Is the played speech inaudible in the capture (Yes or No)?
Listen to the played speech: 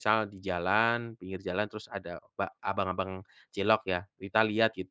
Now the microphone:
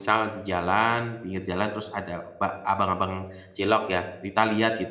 No